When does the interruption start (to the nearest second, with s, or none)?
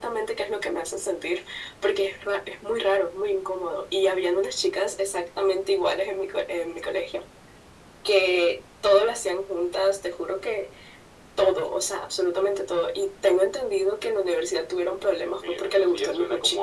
15 s